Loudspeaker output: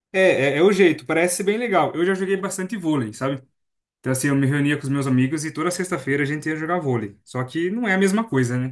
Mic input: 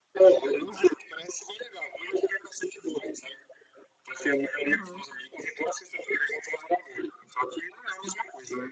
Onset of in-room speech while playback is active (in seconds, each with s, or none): 4.7 s